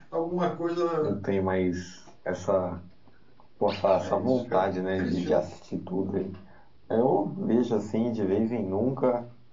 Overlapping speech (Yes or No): Yes